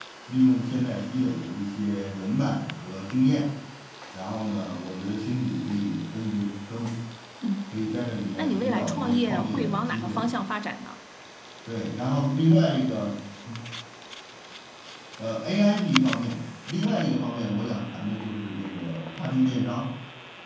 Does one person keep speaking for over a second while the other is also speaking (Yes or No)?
Yes